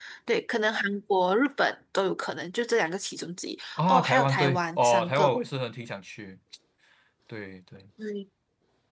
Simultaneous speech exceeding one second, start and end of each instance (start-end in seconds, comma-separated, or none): 3.8-5.3